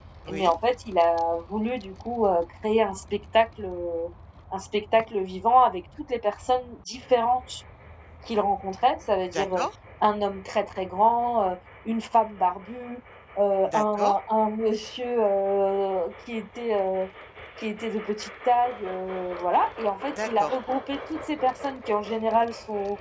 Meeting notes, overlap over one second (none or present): none